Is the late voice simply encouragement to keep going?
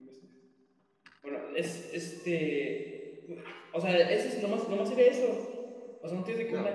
Yes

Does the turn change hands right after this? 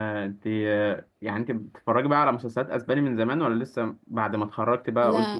No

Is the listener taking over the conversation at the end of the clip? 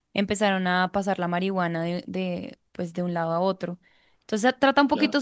No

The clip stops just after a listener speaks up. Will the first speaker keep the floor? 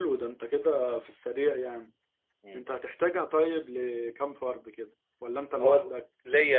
No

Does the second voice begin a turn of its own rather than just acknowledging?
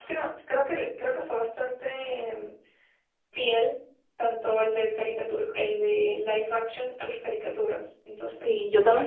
Yes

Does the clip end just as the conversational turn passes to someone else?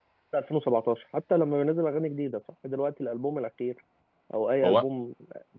No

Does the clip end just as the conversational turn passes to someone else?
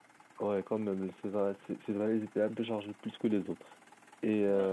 No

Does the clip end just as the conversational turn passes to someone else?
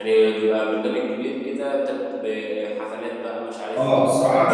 Yes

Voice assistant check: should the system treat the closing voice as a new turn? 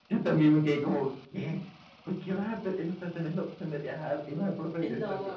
Yes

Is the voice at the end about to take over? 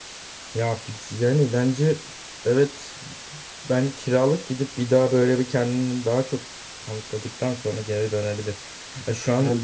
No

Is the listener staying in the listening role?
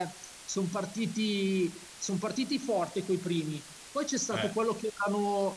Yes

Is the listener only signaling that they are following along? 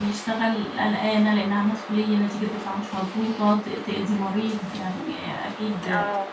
Yes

